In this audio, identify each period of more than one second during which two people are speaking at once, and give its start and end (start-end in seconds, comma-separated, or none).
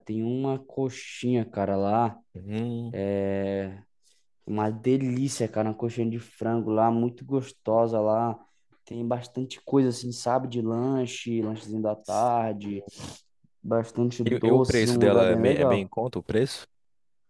14.3-15.8